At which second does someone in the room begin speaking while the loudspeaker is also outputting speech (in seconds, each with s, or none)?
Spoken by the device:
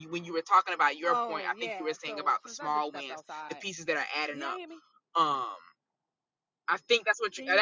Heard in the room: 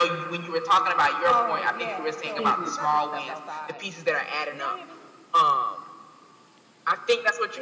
2.3 s